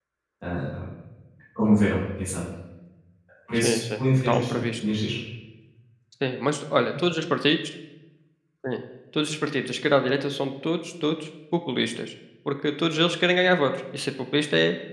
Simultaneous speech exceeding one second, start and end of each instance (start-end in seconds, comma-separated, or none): 3.6-4.9